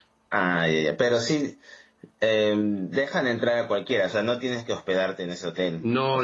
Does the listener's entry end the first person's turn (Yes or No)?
Yes